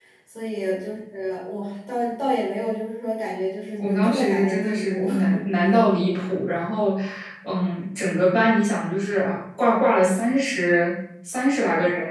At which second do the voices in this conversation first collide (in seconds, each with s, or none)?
3.8 s